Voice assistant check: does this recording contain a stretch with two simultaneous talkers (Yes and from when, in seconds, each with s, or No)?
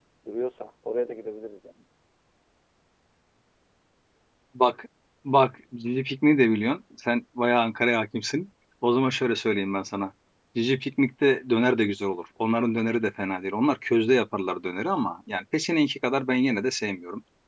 No